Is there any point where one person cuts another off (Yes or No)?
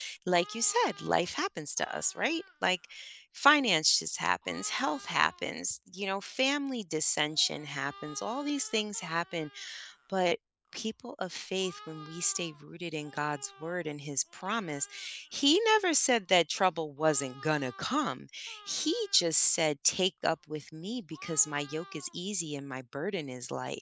No